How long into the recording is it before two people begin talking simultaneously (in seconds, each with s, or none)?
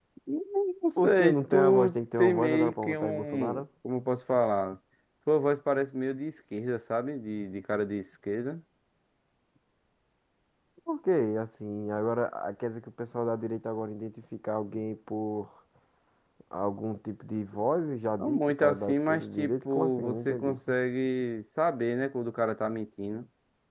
1.0 s